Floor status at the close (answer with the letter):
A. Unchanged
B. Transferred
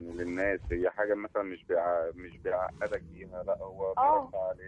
A